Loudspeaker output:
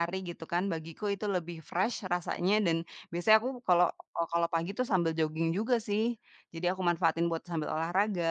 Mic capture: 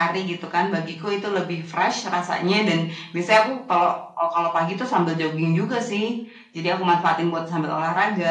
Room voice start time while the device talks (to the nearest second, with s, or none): none